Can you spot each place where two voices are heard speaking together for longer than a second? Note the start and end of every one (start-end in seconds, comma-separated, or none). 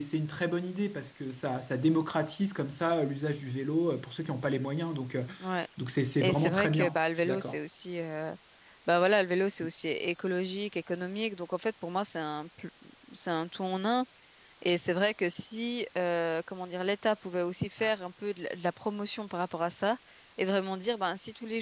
6.2-7.6